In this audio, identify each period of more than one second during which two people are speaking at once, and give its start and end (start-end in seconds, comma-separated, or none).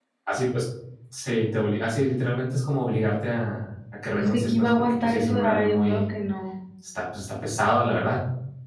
4.1-6.0